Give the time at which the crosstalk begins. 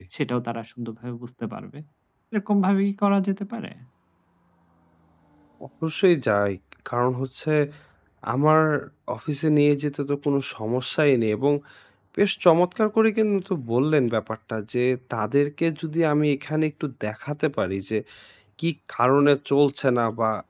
none

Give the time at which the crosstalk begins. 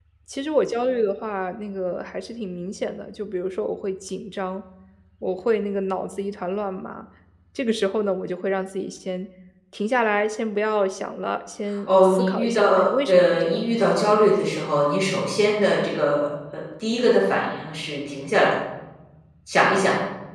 11.9 s

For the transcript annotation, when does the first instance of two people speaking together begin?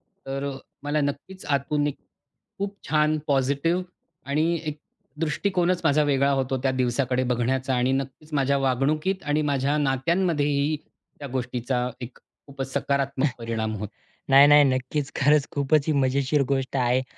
none

